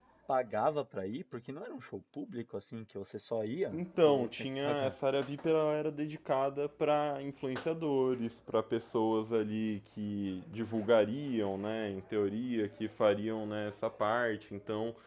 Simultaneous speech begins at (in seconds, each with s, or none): 3.7 s